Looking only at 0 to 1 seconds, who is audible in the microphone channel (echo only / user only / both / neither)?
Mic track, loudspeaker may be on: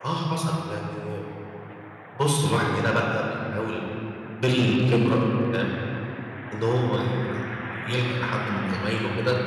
user only